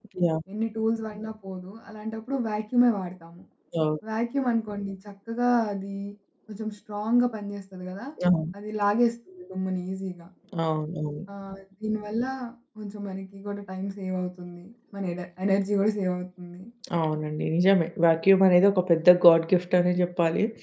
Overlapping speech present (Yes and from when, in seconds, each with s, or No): No